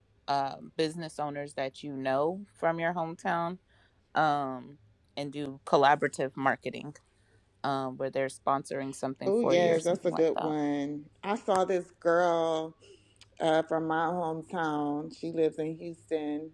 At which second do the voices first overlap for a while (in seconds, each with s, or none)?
9.3 s